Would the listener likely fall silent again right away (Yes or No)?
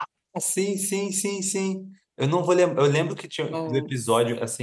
Yes